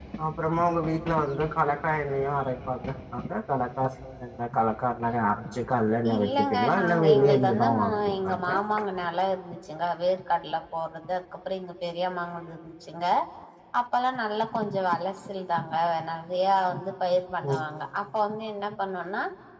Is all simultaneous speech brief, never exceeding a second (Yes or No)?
No